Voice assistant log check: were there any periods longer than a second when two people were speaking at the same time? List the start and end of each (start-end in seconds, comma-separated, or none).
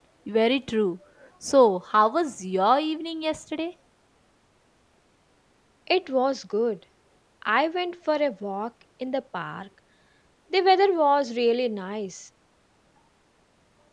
none